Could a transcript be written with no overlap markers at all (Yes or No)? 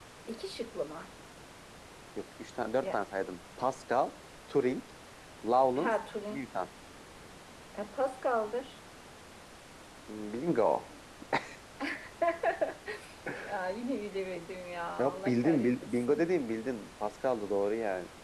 No